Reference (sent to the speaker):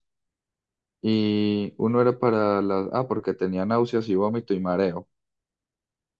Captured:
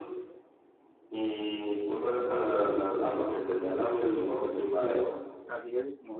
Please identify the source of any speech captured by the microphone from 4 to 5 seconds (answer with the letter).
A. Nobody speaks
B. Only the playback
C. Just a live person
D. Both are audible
D